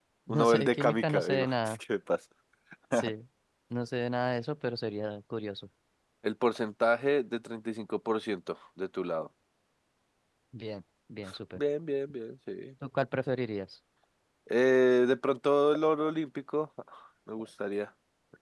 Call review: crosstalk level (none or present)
present